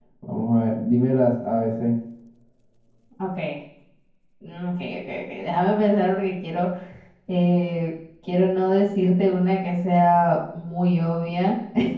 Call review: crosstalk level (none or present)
none